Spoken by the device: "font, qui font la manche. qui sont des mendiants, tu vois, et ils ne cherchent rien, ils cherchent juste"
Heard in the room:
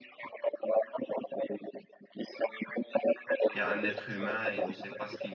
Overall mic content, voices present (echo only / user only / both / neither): both